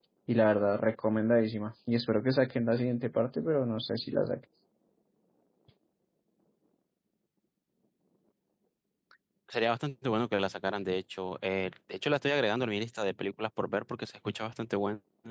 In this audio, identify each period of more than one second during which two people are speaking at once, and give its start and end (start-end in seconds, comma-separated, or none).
none